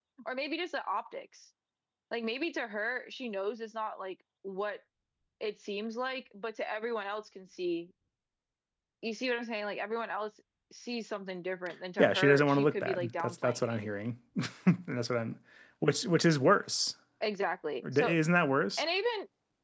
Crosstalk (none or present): present